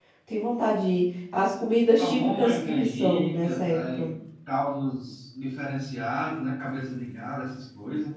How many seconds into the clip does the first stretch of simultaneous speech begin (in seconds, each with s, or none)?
2.0 s